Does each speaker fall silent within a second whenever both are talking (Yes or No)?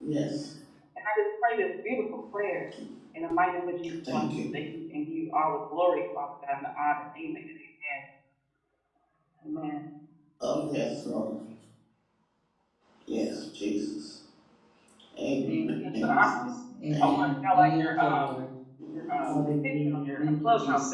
No